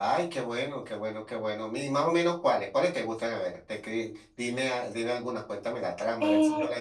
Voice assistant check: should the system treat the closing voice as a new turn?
Yes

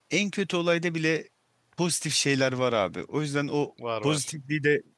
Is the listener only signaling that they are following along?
Yes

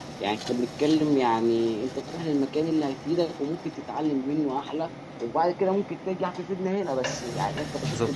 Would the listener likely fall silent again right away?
Yes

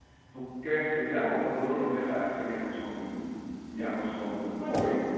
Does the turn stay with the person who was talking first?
No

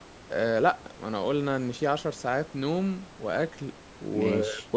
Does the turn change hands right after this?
No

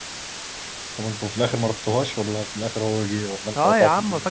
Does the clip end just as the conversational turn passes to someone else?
Yes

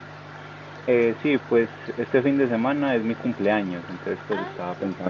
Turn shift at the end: No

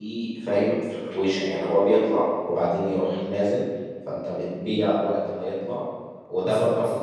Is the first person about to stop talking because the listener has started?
No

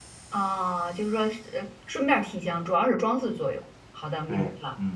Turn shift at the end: Yes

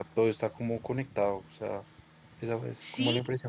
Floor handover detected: Yes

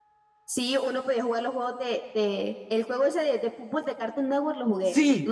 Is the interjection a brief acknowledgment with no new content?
No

